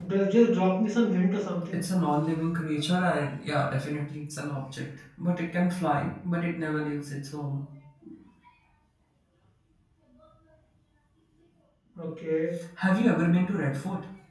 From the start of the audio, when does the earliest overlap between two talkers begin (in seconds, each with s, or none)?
none